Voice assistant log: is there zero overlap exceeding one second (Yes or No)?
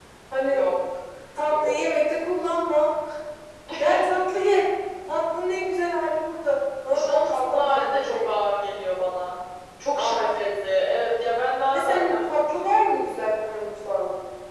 No